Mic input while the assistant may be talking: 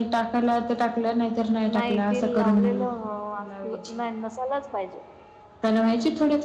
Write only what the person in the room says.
नाही तेल लावलेलं असल, नाही नस लाच पाहिजे.

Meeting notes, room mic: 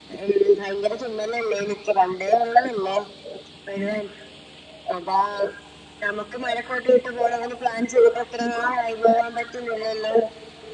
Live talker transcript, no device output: none

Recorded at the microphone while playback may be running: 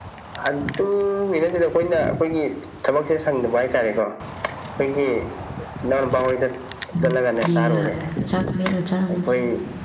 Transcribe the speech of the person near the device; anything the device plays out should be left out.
ꯎꯝ ꯏꯒ ꯆꯥꯛ ꯃ‌ꯦꯠꯂ ꯆꯥꯔꯝꯅꯤ

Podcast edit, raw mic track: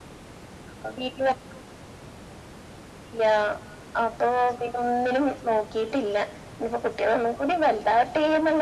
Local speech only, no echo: none

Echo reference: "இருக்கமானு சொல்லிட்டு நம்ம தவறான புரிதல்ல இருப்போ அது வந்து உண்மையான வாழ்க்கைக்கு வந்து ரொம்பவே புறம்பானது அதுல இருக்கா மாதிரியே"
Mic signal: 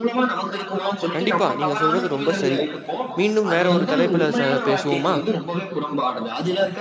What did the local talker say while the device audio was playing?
கண்டிப்பா நீங்க சொல்றது ரொம்ப சரி மீண்டும் வேற ஒரு தலைப்புல ச பேசுவோமா

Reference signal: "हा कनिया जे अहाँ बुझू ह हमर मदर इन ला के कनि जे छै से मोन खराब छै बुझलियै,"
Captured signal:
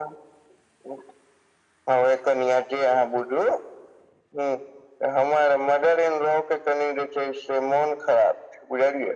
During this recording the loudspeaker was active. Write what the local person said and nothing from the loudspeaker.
none

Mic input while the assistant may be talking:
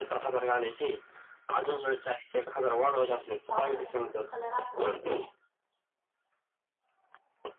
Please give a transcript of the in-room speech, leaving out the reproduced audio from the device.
हम् पावसाळ्यात थोडा चिखल राहतो

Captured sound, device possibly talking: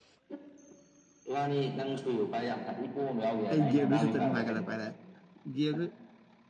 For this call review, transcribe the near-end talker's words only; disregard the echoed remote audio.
ꯑꯩ ꯒꯦꯝꯗꯨ ꯁꯨꯇ ꯅꯨꯡꯉꯥꯏꯈꯠꯂꯛꯄ ꯍꯥꯏꯔꯦ ꯒꯦꯝꯗꯨ

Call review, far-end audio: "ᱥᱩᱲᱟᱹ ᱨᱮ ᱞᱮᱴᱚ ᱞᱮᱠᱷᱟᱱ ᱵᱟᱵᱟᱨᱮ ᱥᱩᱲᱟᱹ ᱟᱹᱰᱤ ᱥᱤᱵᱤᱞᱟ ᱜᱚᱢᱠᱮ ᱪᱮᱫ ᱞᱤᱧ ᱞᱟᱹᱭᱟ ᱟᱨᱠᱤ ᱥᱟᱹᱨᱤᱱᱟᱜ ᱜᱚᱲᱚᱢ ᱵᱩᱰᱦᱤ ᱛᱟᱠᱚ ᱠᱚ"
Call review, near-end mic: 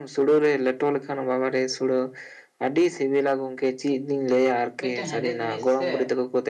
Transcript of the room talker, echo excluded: ᱢᱤᱫᱴᱮᱱ ᱦᱮᱸᱫᱮ ᱡᱤᱱᱤᱥ ᱥᱮ

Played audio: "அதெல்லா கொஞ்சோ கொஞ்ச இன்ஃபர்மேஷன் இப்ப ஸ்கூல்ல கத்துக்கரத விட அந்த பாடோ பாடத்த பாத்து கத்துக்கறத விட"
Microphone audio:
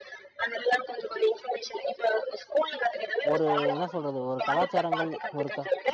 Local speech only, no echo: ஒரு என்ன சொல்றது ஒரு கலாச்சாரங்கள் ஒரு

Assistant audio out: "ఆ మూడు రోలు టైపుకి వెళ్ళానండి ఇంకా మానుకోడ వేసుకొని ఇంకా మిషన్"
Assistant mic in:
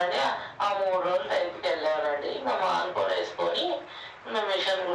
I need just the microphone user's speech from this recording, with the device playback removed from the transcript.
none

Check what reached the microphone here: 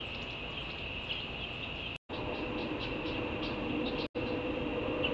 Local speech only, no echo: none

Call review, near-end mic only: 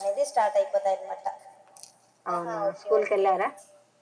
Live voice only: అవునా స్కూల్ కెళ్లారా

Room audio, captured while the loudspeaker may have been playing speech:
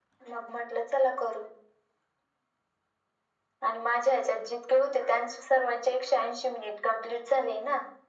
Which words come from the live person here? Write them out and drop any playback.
none

